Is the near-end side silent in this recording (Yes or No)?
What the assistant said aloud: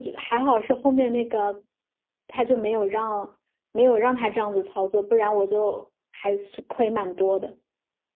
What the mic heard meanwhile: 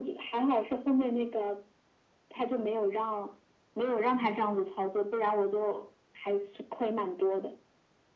Yes